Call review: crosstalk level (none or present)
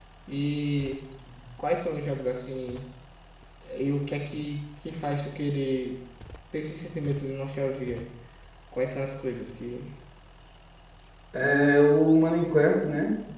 none